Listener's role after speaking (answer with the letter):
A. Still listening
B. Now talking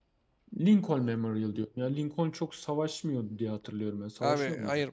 B